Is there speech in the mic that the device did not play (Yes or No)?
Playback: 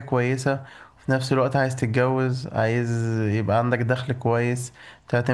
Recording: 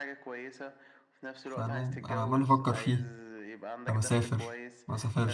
Yes